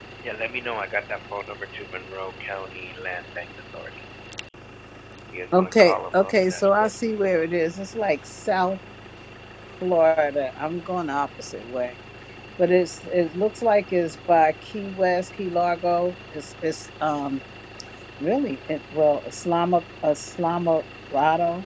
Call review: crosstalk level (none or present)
present